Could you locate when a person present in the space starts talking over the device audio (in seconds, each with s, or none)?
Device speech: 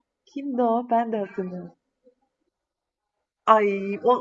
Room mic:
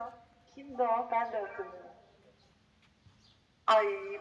none